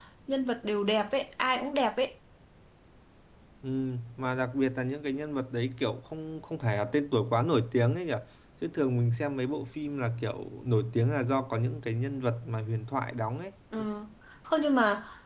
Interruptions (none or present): none